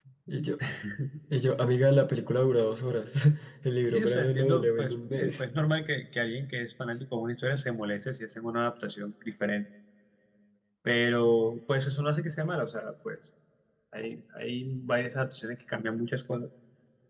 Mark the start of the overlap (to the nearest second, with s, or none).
4 s